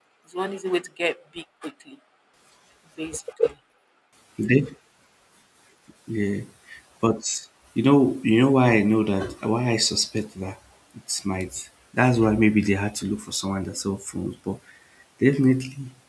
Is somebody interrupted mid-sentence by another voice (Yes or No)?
No